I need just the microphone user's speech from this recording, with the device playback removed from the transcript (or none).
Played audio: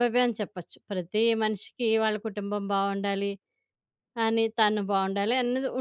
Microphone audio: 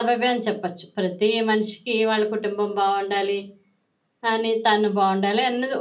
none